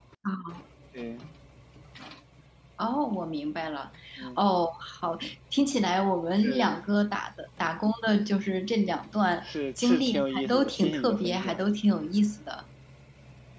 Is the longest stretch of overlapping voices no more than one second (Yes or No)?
No